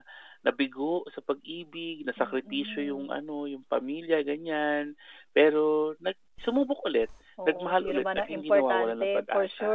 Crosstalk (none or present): present